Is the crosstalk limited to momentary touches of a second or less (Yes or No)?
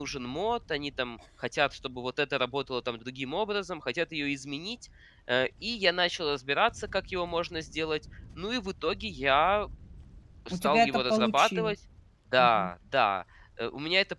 No